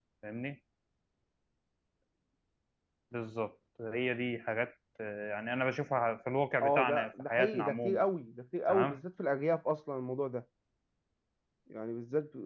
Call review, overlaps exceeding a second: present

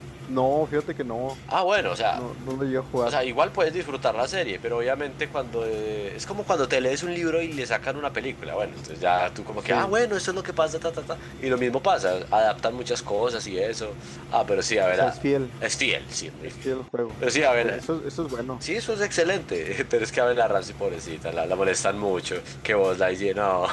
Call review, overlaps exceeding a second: none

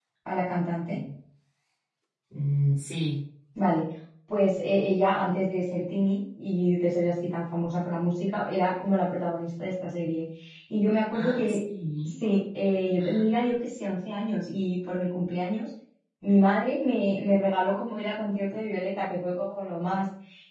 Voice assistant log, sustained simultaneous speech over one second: none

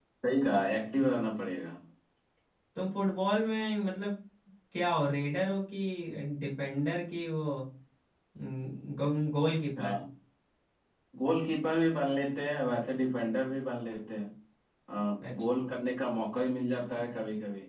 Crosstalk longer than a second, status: none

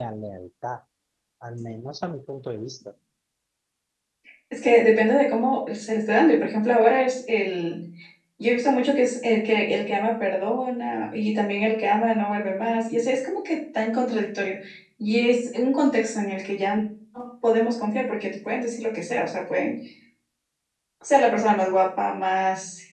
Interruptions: none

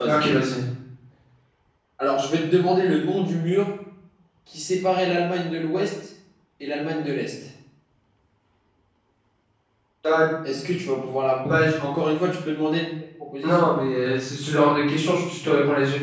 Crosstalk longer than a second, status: none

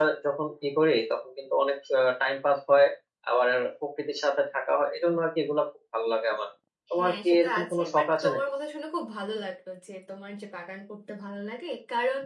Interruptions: present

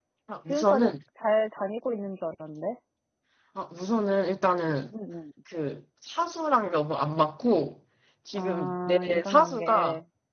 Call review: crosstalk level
present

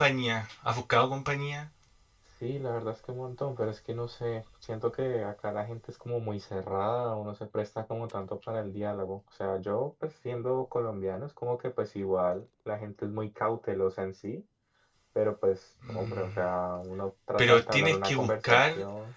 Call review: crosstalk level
present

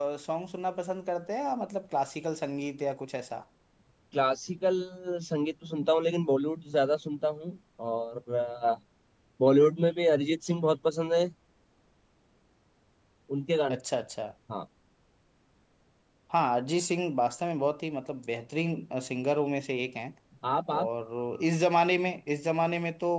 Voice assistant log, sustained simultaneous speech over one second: none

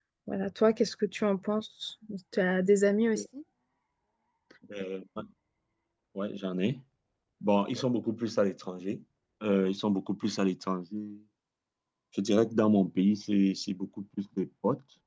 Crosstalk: none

